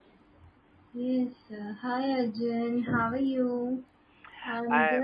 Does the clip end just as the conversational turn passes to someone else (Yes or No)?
No